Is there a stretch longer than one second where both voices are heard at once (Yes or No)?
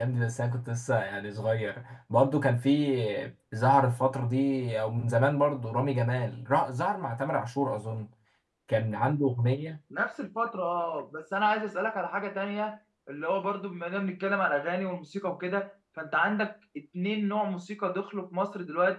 No